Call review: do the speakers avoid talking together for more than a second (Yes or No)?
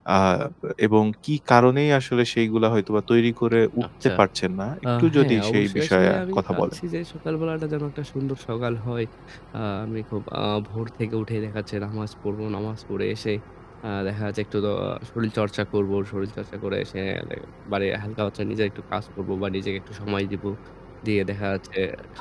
No